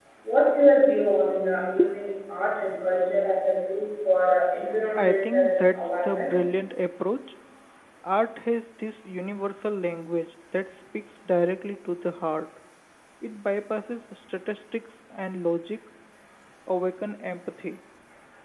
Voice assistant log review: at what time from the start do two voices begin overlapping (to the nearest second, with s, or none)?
5 s